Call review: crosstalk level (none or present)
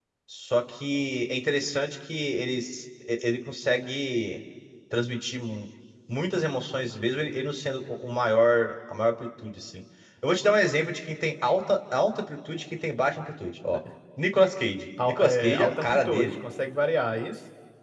present